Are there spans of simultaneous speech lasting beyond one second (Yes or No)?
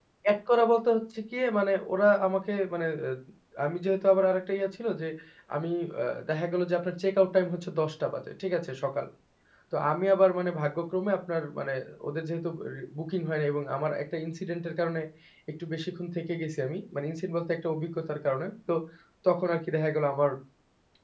No